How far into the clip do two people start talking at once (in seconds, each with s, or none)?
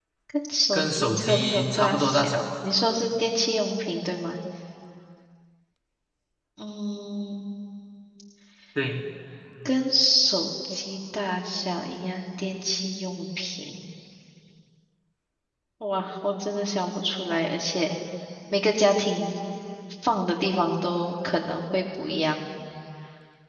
0.7 s